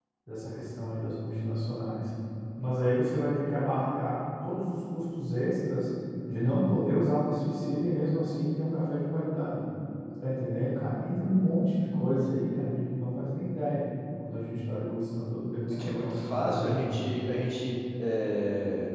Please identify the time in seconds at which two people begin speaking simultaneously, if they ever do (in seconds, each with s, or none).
15.7 s